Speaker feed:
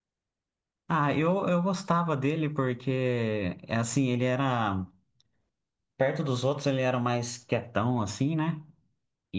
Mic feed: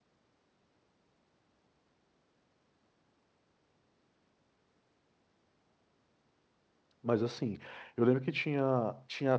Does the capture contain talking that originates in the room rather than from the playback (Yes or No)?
Yes